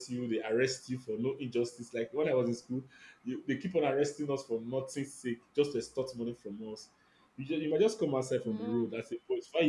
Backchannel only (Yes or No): Yes